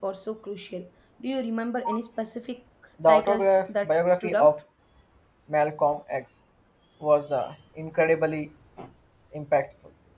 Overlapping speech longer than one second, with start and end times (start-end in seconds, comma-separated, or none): 3.1-4.5